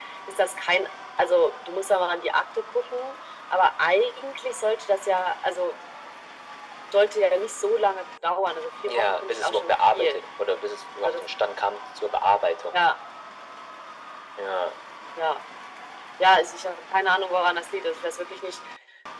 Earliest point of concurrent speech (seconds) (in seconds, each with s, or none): 8.9 s